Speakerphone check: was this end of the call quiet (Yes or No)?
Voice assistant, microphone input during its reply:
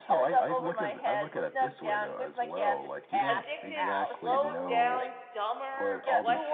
No